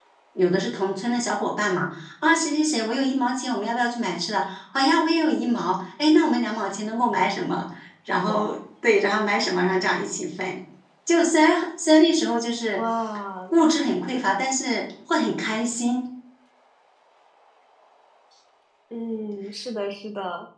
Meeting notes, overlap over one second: none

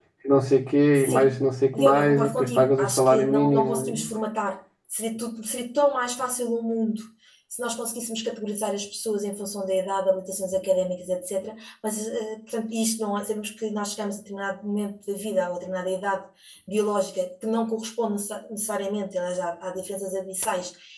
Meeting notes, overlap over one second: present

